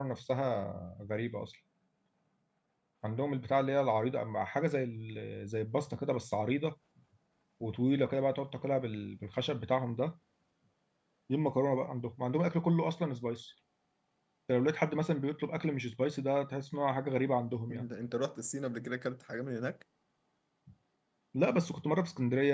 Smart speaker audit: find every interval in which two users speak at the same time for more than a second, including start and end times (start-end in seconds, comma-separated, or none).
none